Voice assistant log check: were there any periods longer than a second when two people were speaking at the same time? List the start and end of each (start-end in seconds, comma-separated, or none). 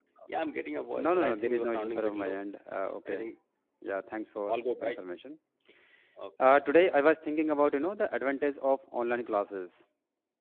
0.9-2.4